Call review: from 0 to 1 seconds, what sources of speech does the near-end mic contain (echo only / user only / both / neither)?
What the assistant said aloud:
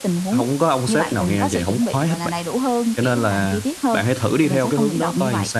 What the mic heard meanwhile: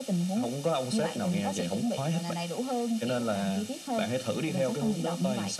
echo only